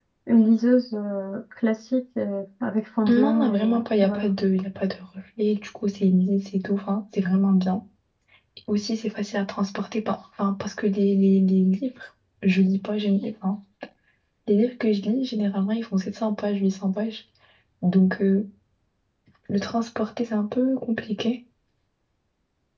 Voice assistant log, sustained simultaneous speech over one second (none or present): present